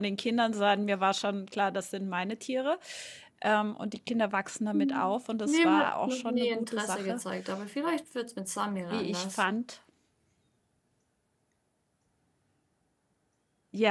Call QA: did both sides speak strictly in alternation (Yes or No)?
No